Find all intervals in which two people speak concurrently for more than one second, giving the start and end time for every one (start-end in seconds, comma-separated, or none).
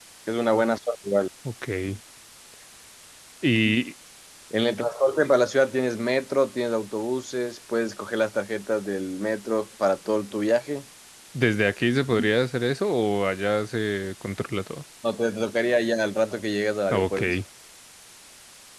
none